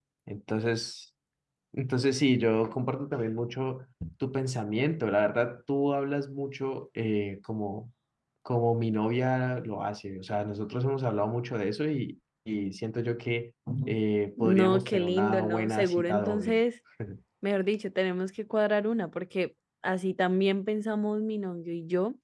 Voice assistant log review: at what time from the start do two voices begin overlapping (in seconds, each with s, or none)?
14.4 s